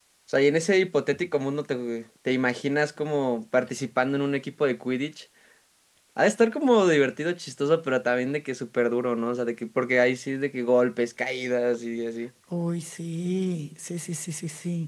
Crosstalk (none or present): none